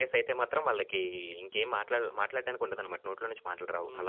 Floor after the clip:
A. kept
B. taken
B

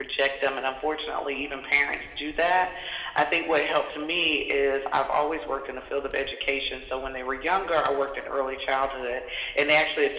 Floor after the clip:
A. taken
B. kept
B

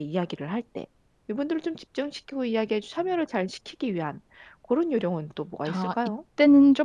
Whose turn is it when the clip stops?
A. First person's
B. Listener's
B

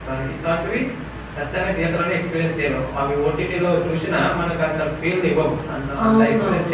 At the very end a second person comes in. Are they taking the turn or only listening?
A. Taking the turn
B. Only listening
A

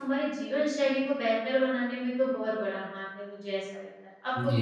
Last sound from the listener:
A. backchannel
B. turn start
B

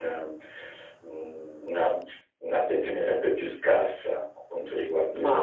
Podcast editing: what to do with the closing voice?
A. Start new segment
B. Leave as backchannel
A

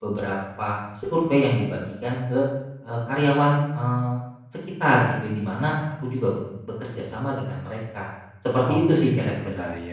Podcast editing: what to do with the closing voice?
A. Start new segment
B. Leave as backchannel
A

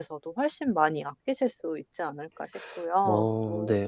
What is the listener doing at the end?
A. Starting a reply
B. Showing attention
A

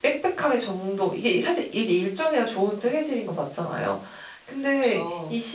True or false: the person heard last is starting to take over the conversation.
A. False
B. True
A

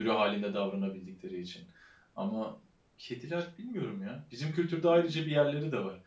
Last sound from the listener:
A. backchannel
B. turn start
A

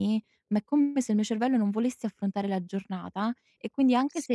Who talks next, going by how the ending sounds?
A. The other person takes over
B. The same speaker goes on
B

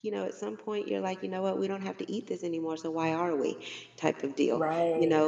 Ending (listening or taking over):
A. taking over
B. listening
B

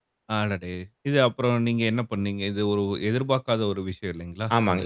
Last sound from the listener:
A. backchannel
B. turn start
B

